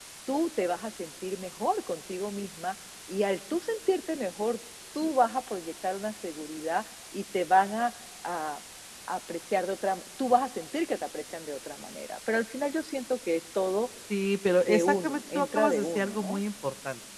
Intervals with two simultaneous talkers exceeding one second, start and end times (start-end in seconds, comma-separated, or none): 14.6-16.4